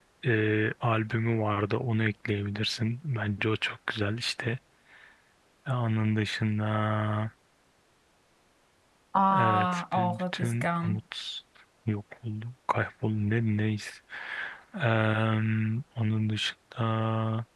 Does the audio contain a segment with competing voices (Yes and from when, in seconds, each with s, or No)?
Yes, from 9.3 s